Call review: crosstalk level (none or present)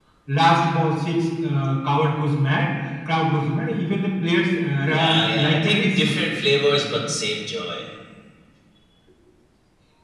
present